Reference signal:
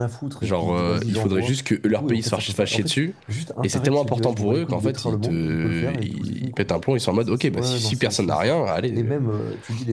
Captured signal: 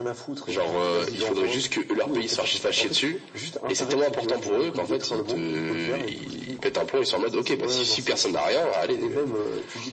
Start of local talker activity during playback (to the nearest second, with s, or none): none